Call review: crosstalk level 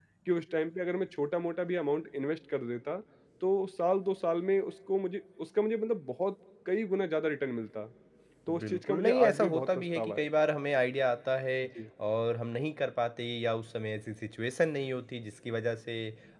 present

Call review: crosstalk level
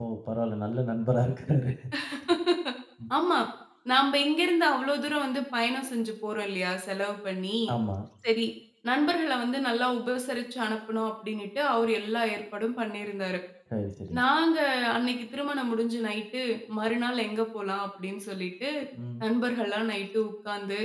none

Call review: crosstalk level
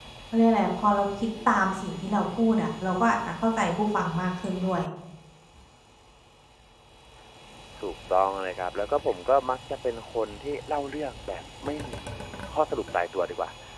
none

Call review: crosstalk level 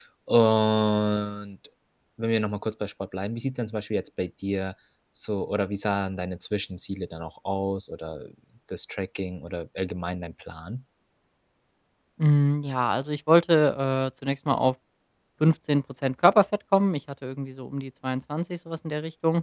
none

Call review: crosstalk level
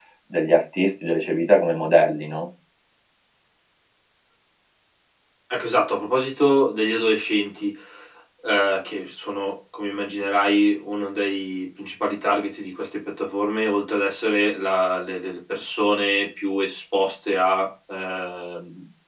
none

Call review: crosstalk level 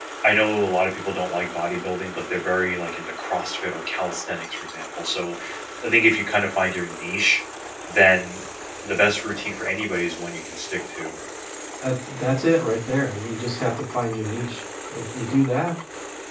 none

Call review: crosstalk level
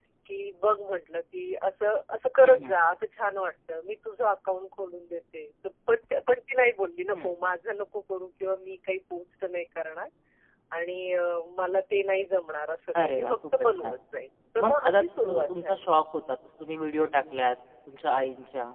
present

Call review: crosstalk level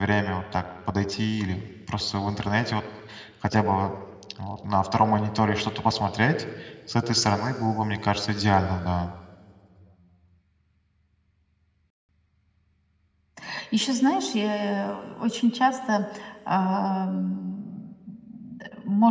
none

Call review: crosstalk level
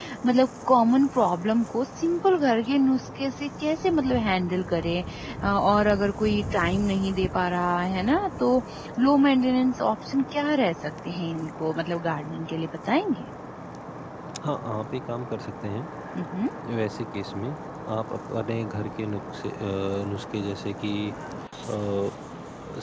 none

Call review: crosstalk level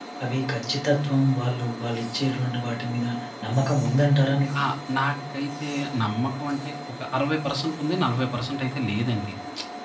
none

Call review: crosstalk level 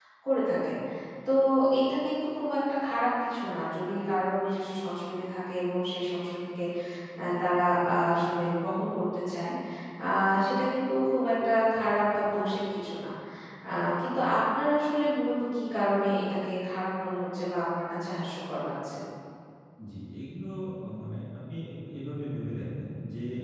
none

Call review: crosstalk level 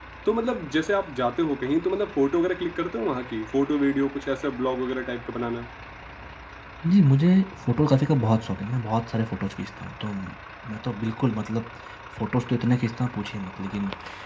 none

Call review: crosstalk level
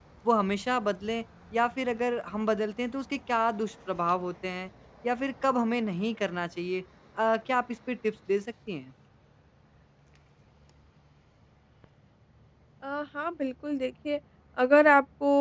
none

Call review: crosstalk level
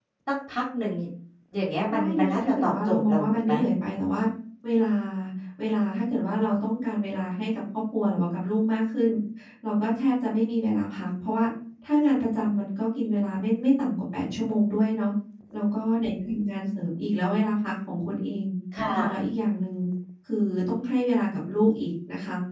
present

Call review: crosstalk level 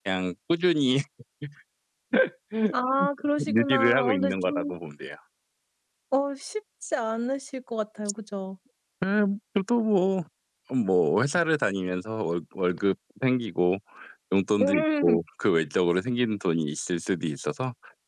present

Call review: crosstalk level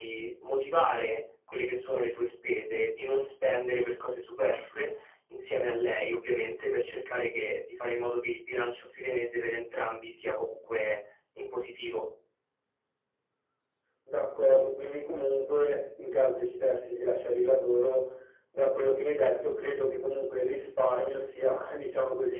none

